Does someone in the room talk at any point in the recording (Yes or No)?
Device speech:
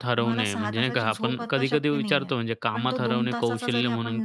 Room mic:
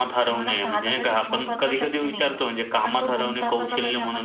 No